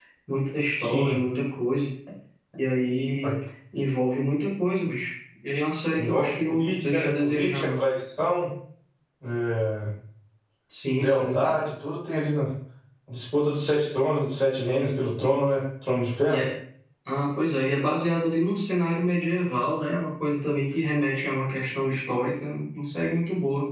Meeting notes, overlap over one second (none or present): present